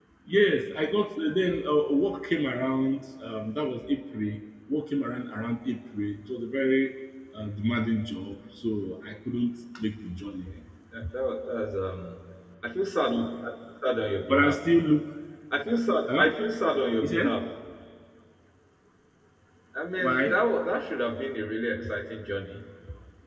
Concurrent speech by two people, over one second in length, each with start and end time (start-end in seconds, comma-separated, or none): none